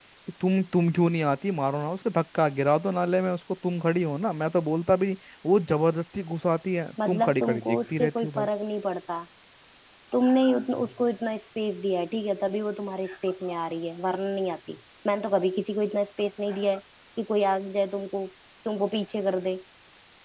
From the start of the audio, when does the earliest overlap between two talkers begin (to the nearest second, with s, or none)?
7 s